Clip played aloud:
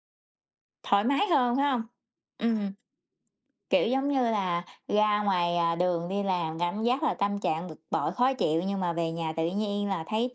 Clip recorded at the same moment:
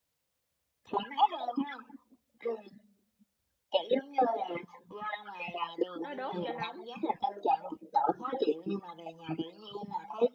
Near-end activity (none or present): present